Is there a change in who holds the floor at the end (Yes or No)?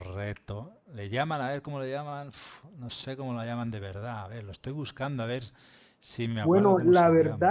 Yes